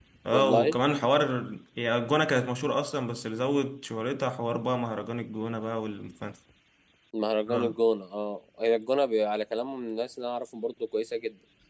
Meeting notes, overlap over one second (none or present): none